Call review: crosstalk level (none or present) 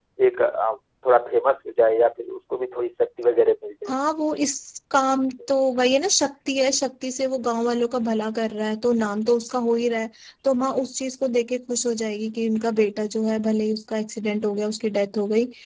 none